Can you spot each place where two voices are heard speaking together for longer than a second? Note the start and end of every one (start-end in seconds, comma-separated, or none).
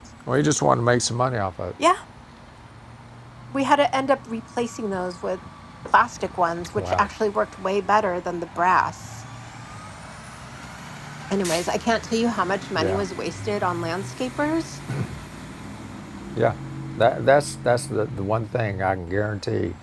none